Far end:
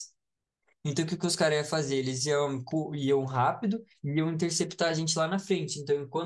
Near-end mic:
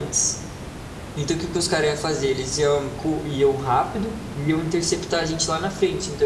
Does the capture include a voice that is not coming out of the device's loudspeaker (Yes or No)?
No